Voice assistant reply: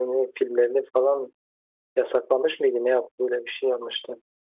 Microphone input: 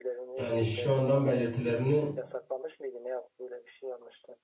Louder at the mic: user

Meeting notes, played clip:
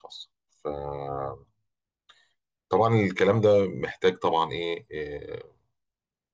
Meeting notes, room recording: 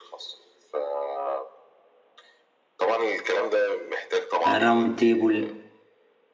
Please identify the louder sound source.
user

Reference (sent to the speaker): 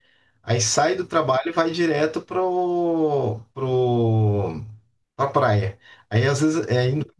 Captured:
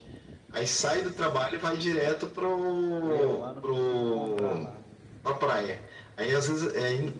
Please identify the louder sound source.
echo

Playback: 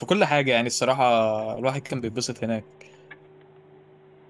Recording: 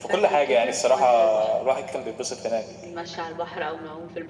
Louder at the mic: echo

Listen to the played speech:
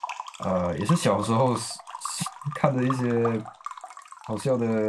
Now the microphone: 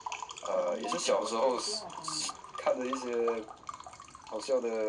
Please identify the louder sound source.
echo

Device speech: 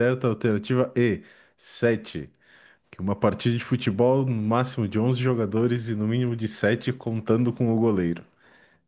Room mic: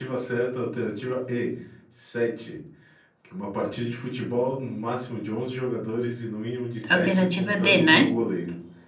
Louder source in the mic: user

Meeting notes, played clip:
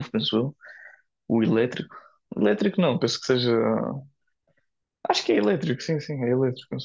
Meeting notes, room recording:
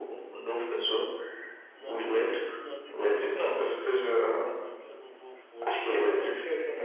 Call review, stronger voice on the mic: echo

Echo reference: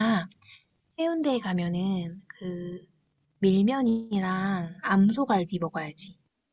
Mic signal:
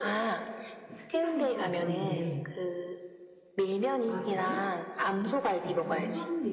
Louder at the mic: echo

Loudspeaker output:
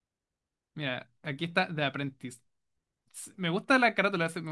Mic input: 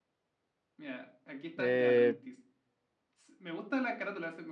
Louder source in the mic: user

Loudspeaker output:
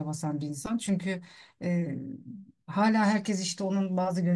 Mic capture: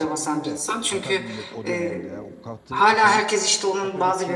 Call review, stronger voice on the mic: echo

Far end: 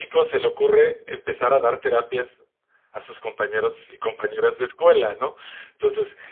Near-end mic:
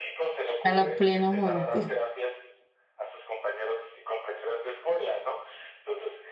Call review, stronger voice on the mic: user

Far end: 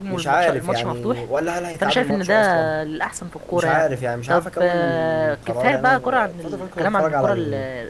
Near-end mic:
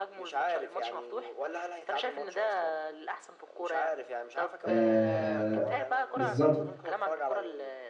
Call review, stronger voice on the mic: user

